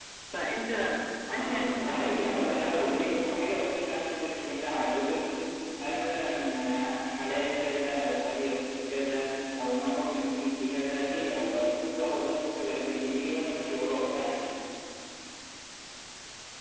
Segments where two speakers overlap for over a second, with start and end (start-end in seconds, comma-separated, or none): 1.3-3.2